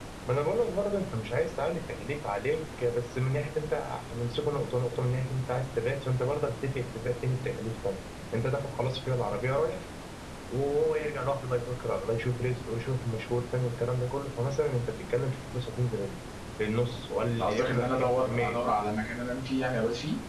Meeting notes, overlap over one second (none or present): present